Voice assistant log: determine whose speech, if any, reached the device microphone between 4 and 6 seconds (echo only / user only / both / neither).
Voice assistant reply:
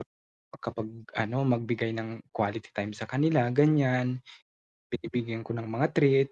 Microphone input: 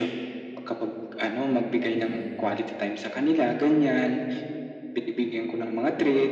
echo only